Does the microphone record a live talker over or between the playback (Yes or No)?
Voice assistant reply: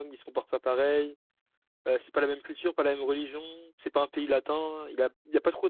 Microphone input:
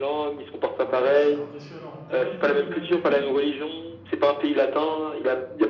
Yes